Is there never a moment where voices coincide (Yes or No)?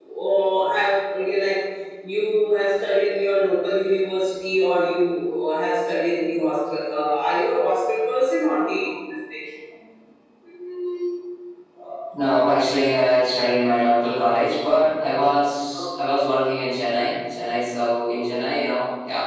Yes